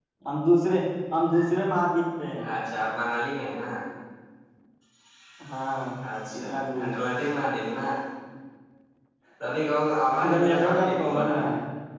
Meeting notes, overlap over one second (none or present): present